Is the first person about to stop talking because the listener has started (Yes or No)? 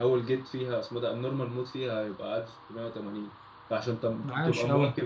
No